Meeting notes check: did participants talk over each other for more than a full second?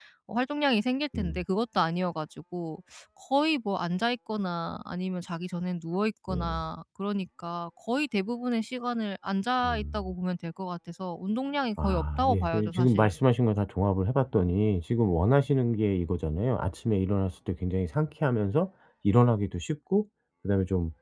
Yes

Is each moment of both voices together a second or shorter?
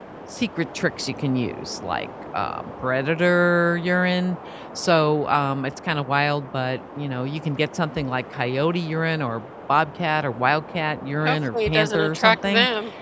No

